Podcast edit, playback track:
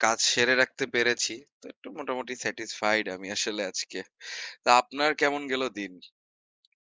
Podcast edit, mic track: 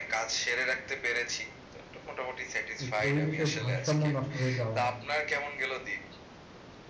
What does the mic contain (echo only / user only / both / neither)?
both